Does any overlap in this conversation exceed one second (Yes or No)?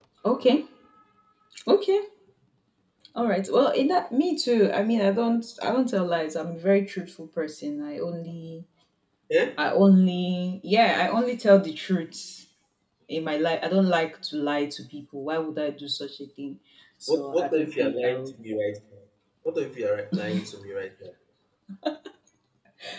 Yes